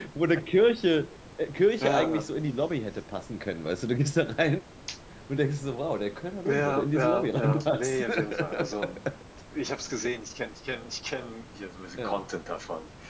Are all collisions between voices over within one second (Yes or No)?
No